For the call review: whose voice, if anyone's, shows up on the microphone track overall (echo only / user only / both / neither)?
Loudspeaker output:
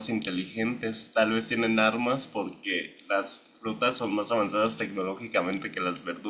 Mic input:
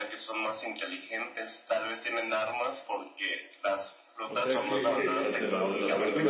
both